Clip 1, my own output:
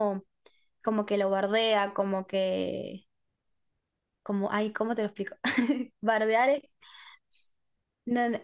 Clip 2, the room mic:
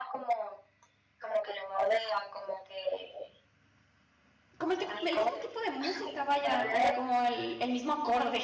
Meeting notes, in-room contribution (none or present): present